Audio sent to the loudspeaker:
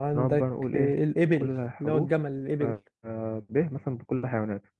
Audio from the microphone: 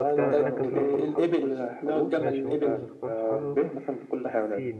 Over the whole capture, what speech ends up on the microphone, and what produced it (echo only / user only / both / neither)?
both